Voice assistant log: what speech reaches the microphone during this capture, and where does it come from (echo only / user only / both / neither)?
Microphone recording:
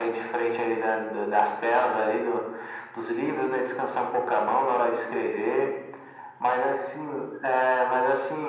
echo only